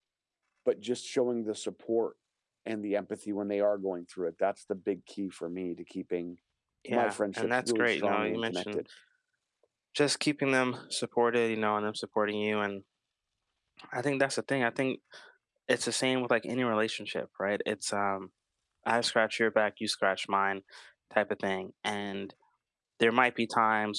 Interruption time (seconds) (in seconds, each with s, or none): 6.9 s